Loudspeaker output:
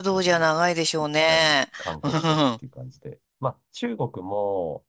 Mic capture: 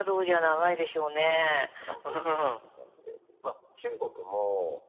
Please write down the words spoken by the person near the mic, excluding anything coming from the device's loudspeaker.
none

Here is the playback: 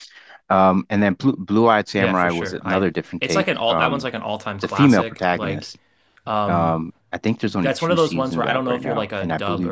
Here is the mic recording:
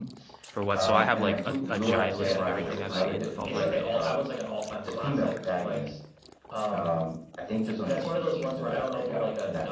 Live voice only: for what. So I have like a, a giant list of everything I've seen with all my ratings.

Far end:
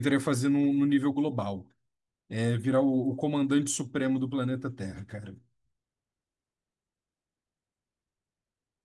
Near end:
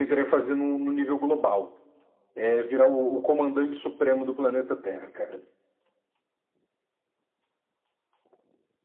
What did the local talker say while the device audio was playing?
none

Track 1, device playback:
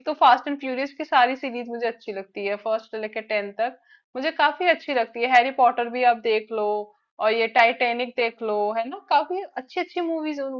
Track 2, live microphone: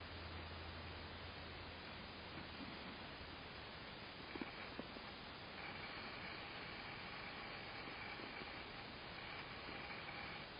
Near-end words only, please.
none

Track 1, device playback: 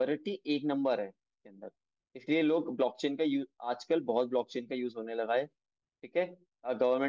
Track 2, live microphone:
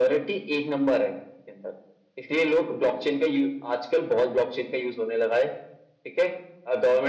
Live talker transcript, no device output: none

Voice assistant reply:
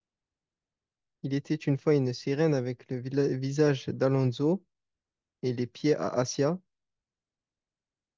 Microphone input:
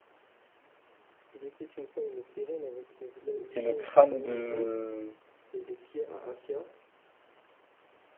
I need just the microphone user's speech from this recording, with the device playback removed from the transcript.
et le crâne de...

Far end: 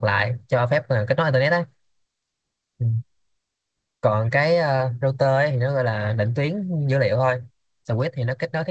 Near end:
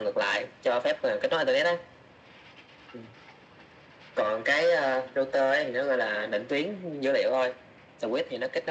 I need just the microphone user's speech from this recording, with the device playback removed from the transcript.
none

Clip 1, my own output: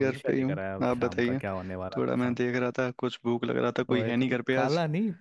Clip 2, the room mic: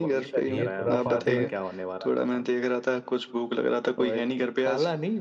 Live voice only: ये खुरापाते

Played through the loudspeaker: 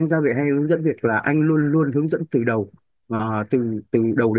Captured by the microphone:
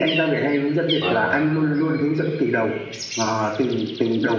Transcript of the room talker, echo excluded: vâng

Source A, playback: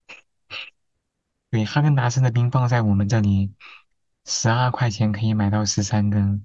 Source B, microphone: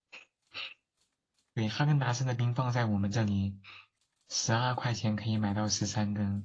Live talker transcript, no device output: none

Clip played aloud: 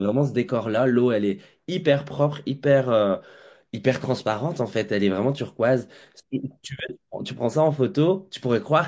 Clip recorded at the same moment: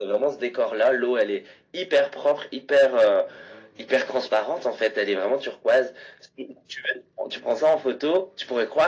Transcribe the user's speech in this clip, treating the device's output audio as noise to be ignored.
none

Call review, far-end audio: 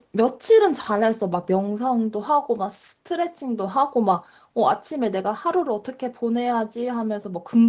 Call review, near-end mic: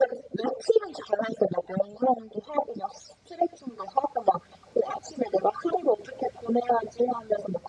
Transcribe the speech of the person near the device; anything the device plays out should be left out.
none

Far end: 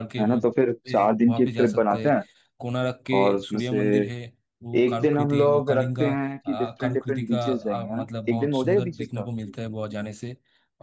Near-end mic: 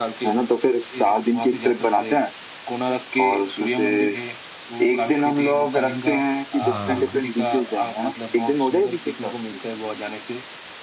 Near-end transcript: हाँ हाँ

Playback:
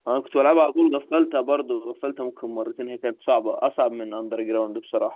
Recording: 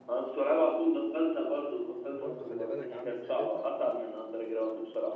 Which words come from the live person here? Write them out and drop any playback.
وبرضه خلي بالك عاملة زي جاتا

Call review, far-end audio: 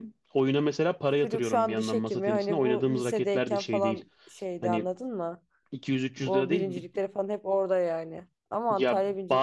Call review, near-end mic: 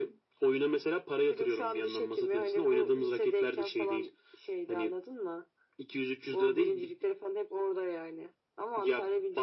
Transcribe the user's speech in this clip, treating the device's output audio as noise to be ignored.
none

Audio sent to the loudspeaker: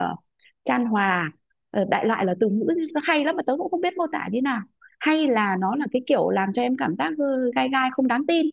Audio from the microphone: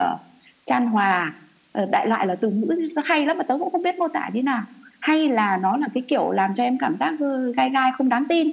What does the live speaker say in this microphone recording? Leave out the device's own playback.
none

